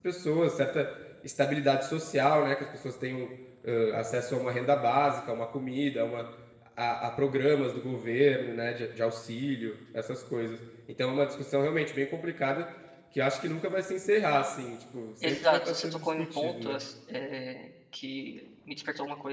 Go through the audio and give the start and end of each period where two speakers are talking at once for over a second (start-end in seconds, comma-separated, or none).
15.2-16.8